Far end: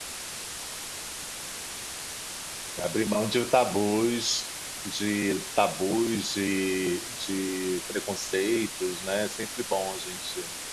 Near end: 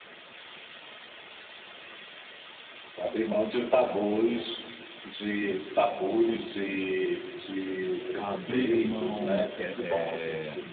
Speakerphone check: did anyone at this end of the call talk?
Yes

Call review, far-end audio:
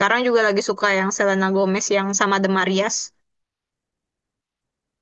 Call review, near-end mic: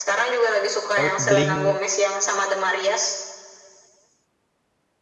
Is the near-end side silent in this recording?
No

